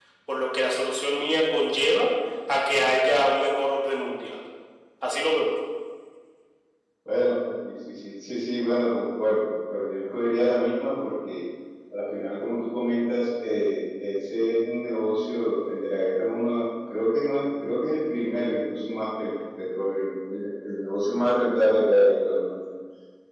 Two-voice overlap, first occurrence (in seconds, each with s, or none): none